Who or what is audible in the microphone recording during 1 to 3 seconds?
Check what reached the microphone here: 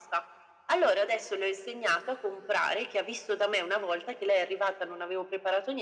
echo only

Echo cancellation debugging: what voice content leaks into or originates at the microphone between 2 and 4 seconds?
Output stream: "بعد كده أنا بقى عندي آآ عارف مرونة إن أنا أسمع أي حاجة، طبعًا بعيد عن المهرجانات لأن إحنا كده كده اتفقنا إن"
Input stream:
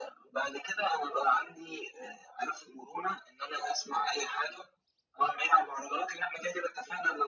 echo only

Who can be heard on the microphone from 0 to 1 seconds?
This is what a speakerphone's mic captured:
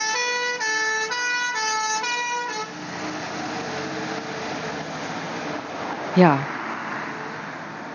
neither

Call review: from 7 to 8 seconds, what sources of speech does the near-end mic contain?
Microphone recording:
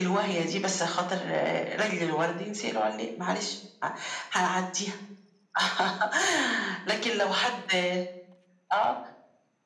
echo only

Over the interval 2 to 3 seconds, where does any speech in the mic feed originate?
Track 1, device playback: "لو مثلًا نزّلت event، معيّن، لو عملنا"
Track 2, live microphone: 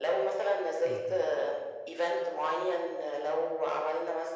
echo only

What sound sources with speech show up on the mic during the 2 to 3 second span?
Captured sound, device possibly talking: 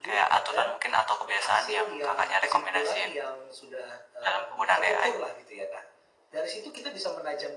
echo only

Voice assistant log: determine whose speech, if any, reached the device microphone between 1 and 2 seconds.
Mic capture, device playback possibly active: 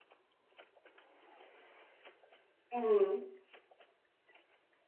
neither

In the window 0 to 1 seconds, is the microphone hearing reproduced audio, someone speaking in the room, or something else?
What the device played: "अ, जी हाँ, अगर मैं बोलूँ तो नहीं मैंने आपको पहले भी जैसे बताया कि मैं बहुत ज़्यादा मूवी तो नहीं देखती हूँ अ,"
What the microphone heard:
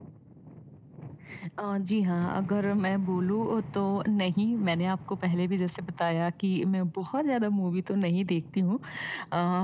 neither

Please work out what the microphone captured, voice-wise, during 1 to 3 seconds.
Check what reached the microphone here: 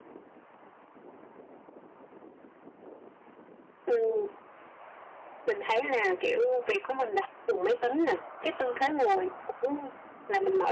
neither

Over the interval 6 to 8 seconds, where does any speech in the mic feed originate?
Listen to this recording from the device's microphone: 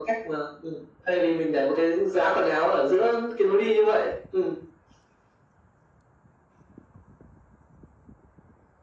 neither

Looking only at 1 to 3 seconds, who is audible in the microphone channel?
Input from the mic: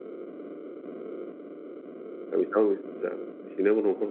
user only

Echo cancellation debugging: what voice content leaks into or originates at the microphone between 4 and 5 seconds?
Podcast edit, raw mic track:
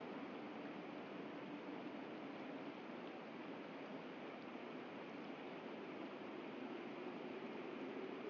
neither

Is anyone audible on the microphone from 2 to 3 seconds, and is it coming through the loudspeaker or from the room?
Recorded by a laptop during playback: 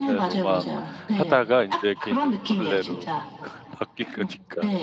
both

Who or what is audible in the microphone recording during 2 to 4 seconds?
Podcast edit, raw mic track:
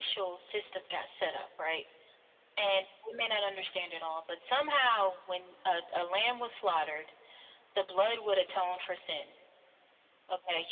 echo only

